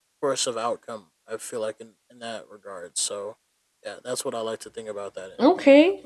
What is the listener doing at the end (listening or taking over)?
taking over